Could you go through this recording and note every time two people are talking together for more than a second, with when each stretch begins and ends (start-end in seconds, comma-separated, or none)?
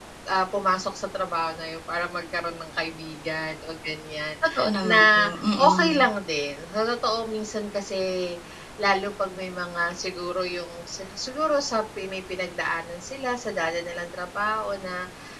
4.8-6.1